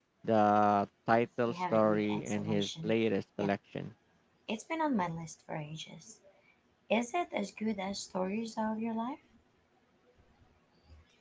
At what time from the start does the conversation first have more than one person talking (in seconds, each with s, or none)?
1.5 s